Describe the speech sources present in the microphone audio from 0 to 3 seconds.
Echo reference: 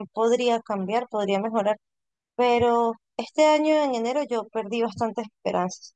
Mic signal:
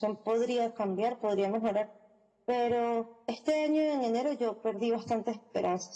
echo only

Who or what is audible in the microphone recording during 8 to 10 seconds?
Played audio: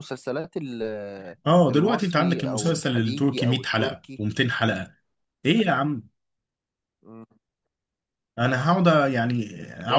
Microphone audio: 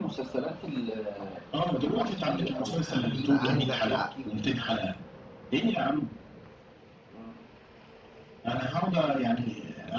echo only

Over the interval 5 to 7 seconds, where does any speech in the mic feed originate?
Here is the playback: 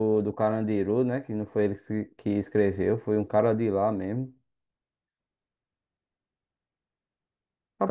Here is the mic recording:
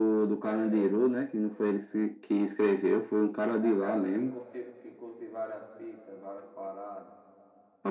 user only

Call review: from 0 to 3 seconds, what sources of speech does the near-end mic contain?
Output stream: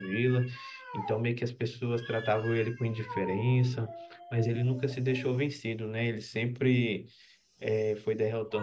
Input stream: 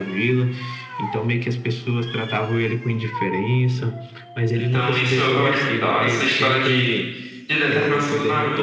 echo only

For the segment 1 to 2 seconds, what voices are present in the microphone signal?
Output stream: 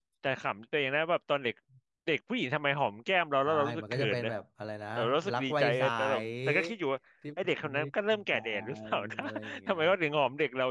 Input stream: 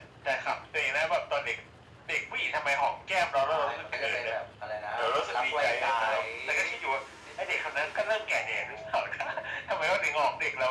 echo only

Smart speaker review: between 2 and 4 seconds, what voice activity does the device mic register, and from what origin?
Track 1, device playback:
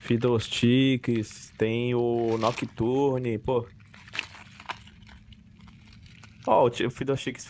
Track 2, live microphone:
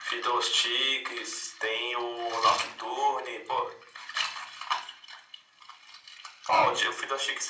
echo only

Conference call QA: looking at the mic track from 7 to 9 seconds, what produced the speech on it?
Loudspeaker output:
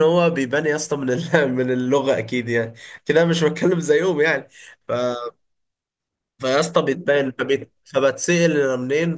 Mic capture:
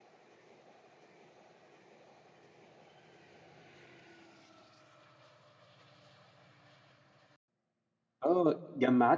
user only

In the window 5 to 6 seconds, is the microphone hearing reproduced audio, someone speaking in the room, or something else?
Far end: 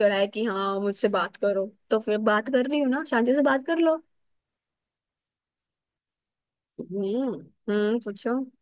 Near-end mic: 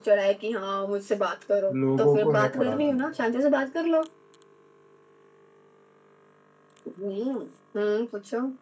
neither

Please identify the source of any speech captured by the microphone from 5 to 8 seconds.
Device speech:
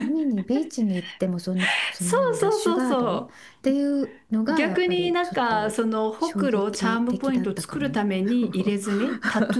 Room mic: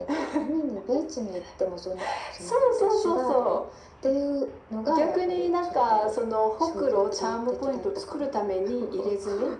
echo only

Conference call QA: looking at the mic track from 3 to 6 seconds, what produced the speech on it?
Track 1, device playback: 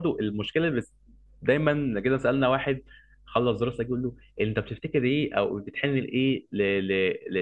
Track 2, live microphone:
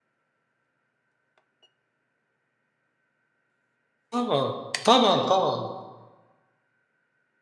user only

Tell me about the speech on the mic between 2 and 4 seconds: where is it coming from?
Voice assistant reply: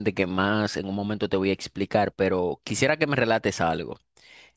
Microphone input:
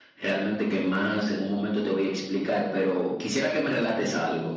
echo only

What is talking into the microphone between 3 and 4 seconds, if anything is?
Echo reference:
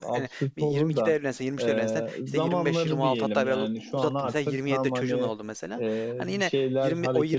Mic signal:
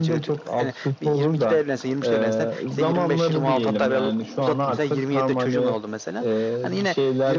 both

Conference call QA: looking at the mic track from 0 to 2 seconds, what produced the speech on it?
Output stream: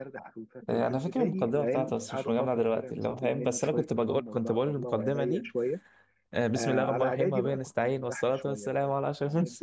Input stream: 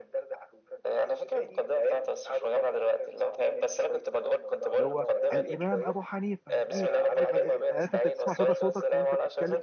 echo only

